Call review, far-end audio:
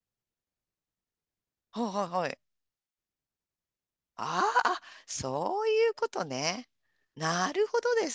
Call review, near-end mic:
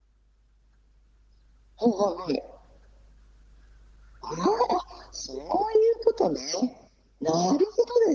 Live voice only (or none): none